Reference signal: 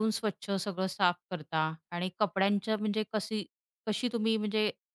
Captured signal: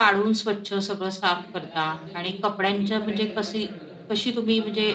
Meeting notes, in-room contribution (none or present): present